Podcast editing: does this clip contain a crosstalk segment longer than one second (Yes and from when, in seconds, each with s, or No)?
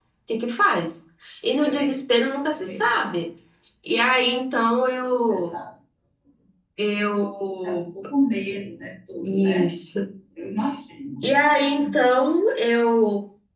No